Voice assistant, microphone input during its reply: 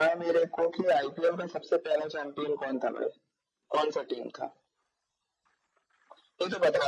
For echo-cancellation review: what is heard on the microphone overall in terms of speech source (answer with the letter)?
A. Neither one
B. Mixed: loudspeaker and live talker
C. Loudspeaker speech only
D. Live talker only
C